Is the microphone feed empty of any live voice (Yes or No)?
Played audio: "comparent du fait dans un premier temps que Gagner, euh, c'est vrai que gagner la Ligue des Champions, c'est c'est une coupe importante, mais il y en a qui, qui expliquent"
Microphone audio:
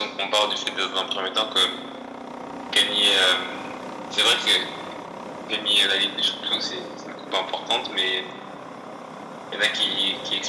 Yes